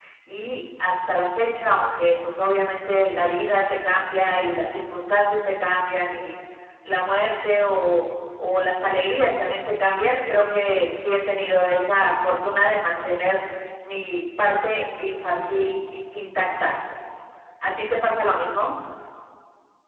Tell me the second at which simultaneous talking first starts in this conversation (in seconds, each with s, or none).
none